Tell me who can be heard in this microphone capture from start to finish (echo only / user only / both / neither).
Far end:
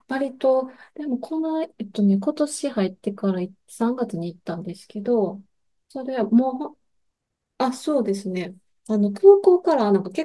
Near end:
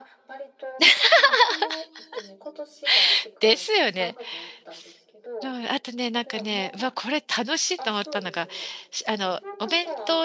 both